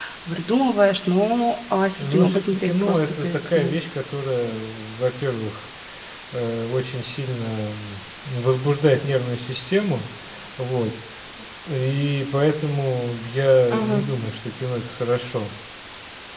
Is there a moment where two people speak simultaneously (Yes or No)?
Yes